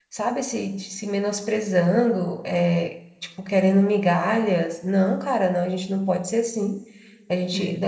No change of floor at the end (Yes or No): Yes